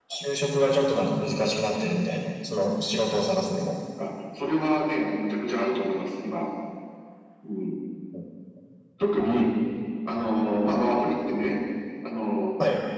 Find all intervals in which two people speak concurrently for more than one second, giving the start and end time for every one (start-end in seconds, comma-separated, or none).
none